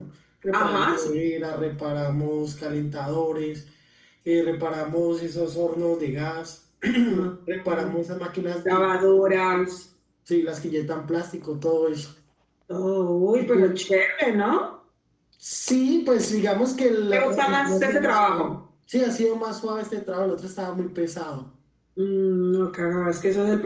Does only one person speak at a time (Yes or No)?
No